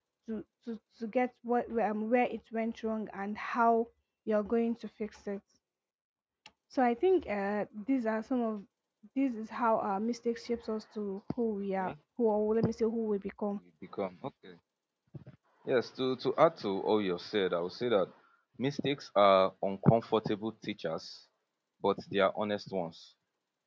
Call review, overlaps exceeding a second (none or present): none